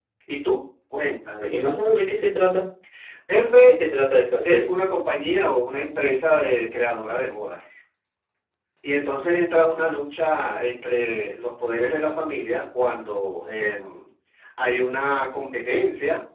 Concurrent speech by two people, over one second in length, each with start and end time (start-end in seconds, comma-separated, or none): none